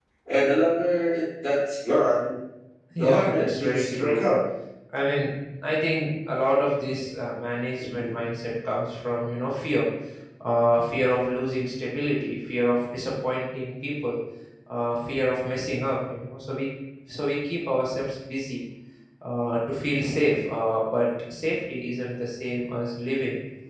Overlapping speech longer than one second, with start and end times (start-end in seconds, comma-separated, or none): 3.0-4.3